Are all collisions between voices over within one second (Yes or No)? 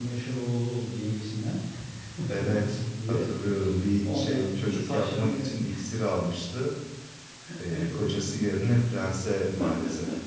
No